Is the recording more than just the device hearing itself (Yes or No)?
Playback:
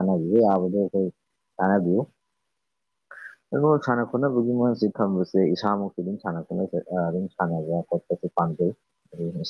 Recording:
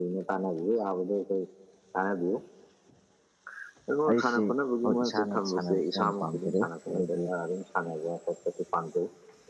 Yes